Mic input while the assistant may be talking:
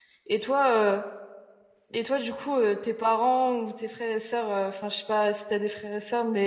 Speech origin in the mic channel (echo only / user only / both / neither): user only